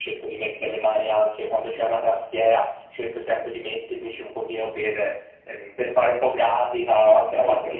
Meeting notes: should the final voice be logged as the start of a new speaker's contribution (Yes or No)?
No